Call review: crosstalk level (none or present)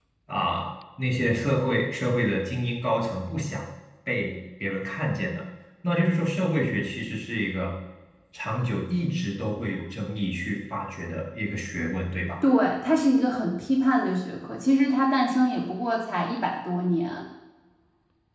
none